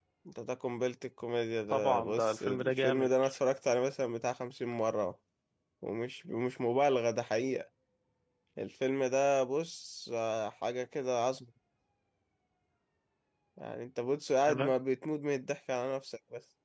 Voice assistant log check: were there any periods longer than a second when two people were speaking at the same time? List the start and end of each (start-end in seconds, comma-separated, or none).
1.7-3.1